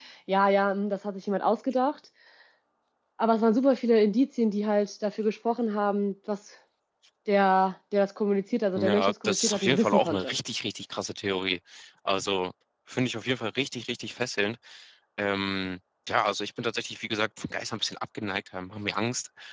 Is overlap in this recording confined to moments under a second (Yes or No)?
No